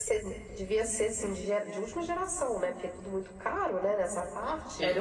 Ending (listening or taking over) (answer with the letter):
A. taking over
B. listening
A